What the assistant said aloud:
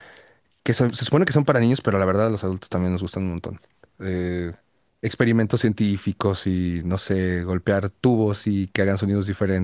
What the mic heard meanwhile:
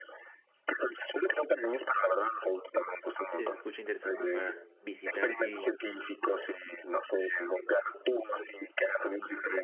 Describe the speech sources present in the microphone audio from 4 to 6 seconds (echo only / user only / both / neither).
both